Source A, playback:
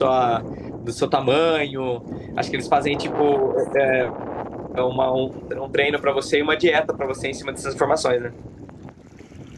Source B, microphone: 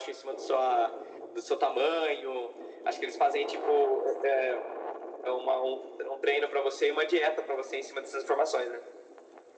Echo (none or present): present